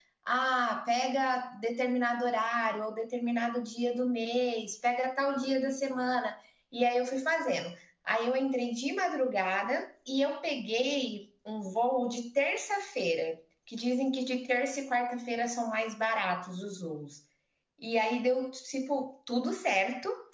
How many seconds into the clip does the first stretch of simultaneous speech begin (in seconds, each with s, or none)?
none